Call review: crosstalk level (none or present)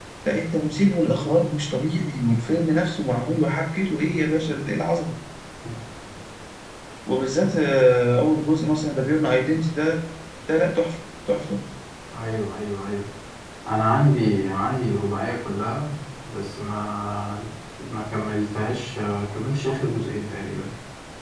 none